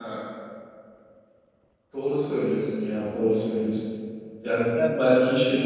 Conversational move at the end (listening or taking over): listening